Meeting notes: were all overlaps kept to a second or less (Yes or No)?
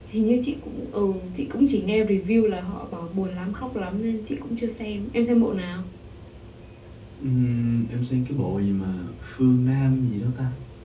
Yes